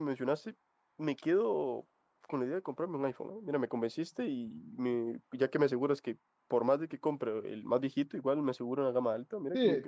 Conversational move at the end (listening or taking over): taking over